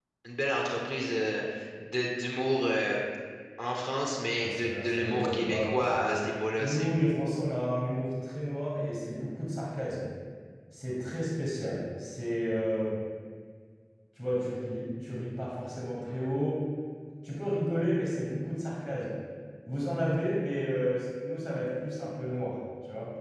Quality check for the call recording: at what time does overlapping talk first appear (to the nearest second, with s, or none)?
4 s